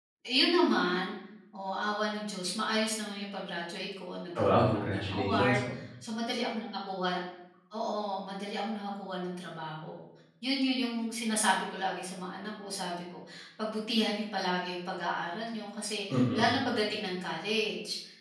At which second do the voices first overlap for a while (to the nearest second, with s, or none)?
4 s